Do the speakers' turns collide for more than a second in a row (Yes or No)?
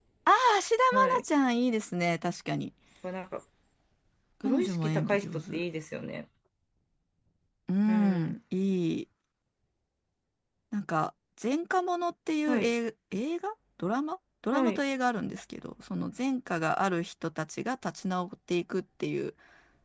Yes